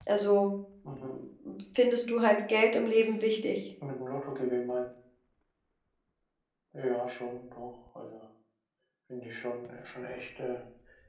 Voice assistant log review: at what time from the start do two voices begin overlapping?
none

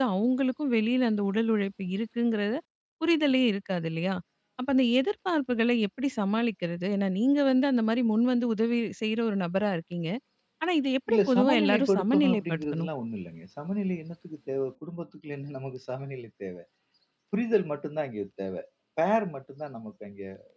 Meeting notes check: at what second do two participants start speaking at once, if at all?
11.1 s

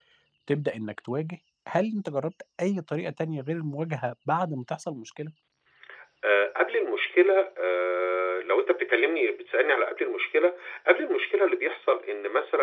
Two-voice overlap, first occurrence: none

